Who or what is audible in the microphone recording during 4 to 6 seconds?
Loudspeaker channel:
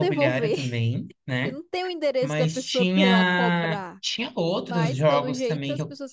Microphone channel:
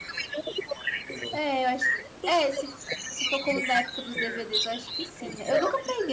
both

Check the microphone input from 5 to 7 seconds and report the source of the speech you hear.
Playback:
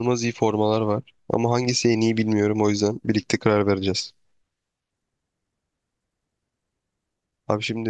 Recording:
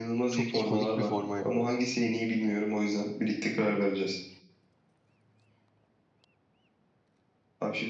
neither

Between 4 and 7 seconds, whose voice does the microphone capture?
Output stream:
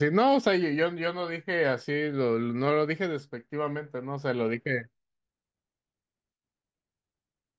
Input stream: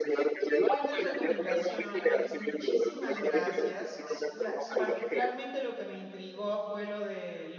both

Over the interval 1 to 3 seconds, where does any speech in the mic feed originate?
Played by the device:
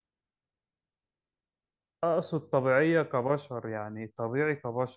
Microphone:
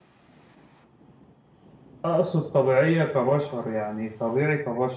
echo only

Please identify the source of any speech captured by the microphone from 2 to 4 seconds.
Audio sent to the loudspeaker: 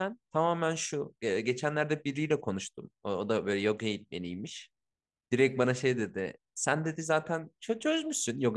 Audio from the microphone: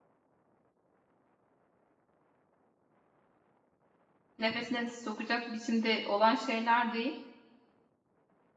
neither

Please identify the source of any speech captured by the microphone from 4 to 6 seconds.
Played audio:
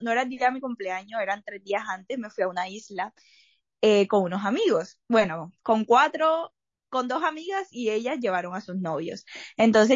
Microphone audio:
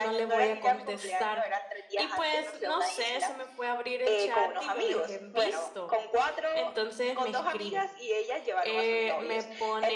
both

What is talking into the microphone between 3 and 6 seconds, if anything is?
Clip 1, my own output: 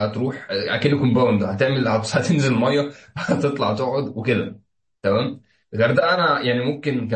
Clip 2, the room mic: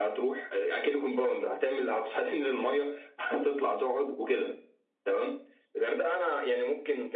echo only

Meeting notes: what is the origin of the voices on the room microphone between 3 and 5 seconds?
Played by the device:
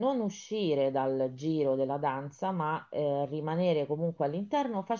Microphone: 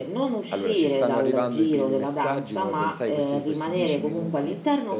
both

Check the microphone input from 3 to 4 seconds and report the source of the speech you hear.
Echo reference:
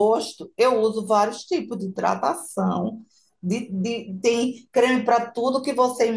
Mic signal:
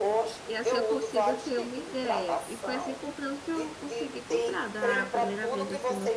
both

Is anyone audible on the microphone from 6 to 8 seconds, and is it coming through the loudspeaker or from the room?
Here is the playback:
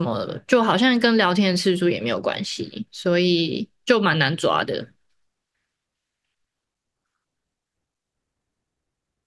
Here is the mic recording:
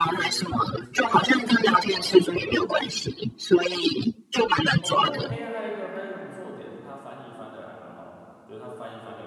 user only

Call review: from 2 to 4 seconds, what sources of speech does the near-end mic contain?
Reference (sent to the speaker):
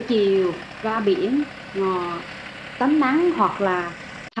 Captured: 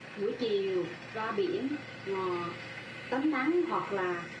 echo only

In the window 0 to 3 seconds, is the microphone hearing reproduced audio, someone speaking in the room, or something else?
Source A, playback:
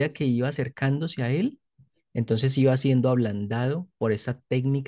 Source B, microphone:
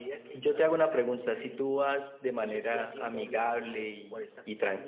both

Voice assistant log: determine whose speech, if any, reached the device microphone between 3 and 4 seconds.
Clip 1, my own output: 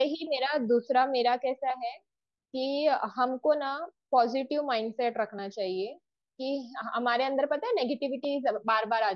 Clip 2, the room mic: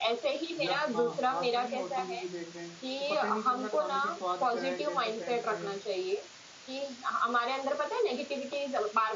both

